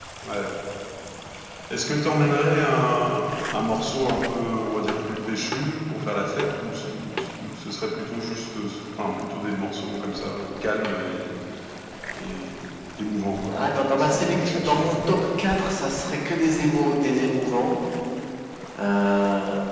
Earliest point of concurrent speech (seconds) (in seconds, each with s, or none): 13.5 s